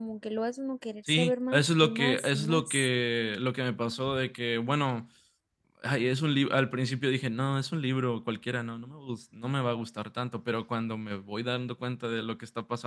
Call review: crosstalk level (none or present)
present